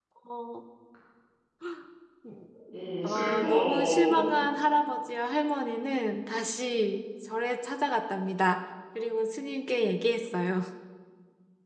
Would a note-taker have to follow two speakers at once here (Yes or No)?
Yes